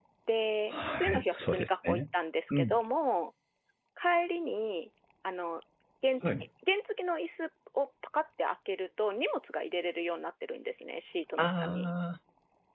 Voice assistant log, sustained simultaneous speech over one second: present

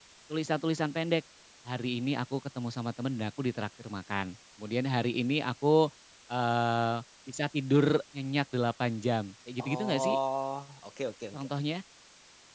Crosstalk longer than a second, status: none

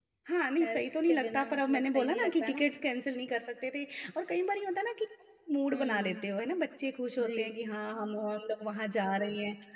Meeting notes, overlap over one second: present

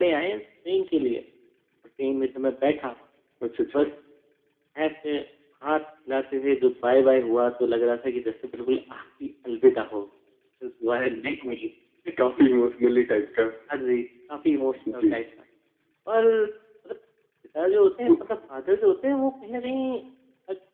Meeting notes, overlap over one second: none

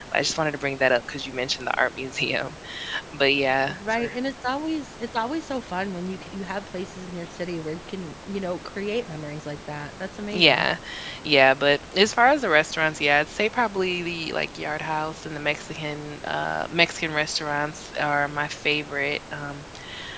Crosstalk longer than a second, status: none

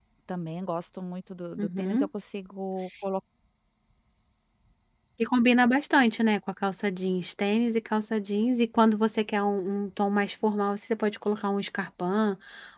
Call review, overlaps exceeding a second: none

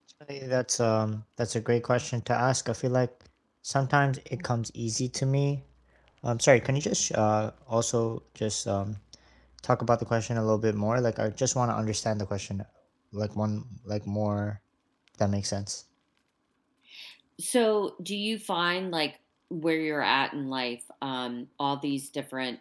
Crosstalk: none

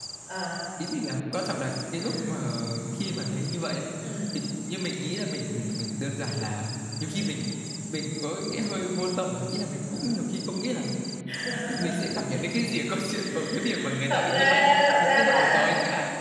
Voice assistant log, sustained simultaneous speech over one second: present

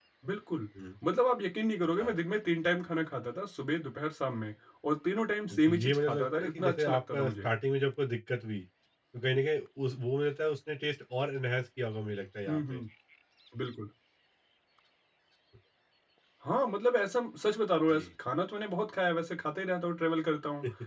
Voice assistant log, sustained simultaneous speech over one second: present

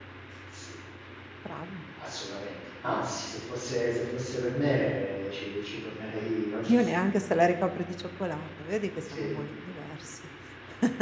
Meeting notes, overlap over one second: none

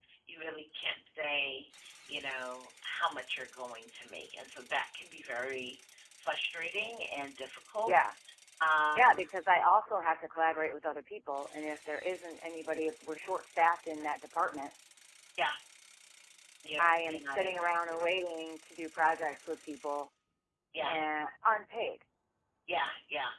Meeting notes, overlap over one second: present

